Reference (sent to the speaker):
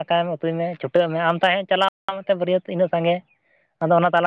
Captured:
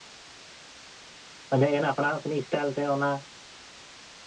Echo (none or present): none